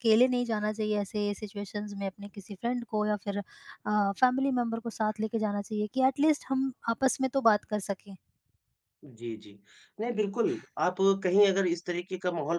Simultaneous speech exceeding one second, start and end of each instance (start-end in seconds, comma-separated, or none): none